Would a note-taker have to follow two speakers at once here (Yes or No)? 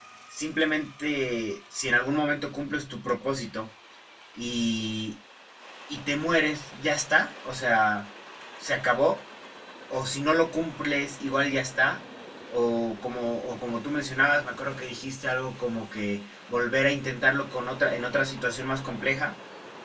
No